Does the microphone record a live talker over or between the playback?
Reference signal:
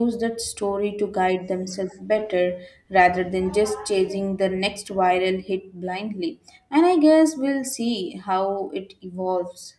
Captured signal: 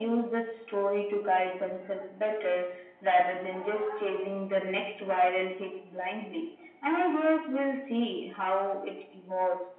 No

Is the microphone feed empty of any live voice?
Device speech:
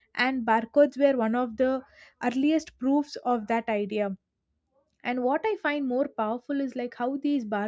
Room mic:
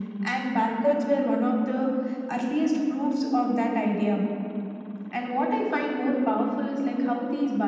Yes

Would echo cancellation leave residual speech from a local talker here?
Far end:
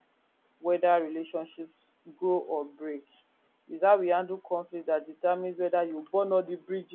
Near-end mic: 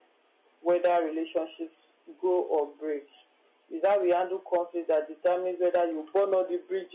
No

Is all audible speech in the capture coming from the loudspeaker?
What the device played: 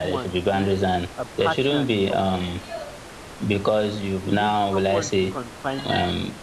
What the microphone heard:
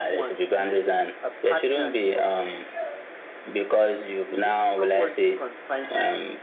Yes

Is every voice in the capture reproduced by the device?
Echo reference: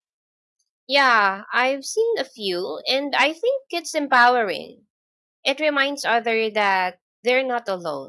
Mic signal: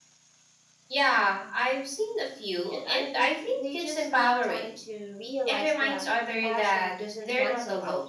No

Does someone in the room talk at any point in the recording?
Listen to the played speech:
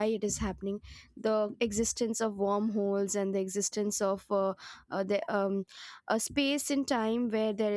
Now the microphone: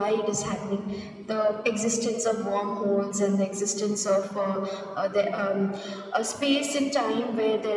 No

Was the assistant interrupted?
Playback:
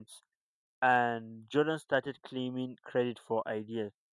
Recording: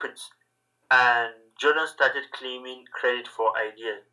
No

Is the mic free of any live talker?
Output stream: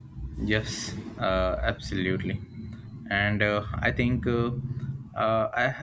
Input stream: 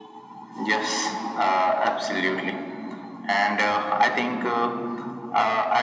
Yes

